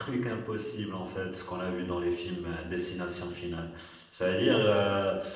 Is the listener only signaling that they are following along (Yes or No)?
Yes